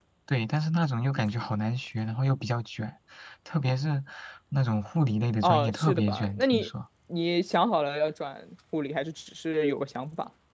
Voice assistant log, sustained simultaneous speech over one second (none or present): present